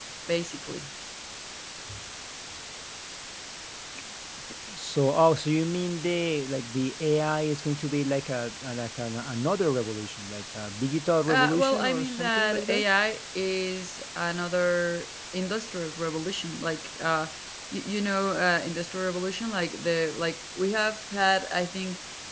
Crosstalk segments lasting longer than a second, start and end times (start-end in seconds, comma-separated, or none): 11.3-12.8